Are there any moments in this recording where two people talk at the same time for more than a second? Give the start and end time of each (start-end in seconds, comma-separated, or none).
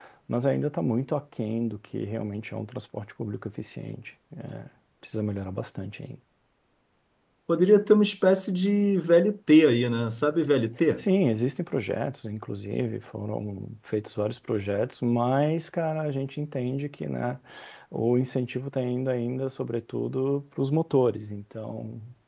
none